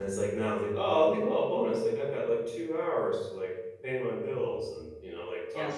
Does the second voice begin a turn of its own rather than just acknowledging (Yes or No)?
Yes